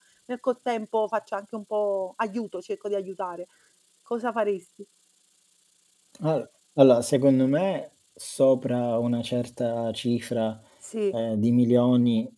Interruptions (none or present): none